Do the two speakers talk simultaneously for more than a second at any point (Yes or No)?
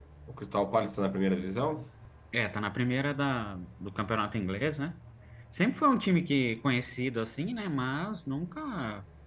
No